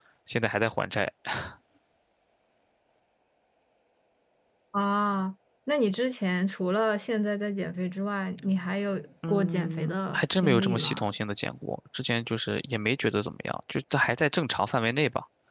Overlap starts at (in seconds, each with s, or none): 9.2 s